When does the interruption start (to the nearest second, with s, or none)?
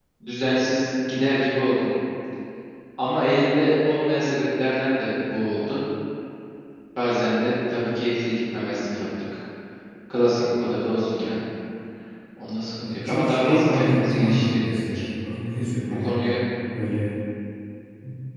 13 s